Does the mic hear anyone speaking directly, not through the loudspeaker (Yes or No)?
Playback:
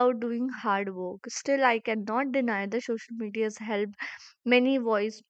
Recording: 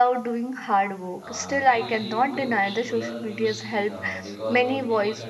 Yes